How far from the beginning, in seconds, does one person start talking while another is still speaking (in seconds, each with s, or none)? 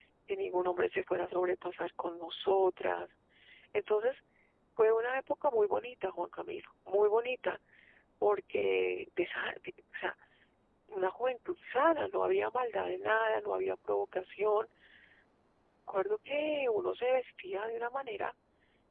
none